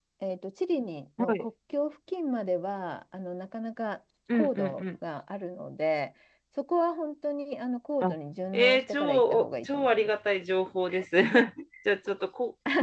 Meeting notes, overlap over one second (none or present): present